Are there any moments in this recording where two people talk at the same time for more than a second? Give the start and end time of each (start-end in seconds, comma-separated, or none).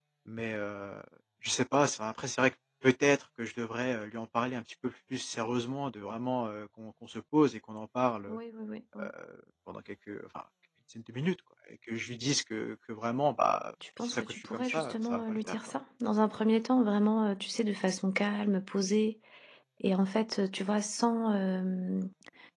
14.0-15.6